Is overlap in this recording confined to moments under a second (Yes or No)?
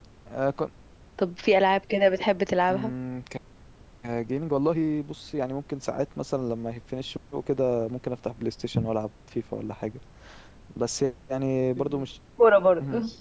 Yes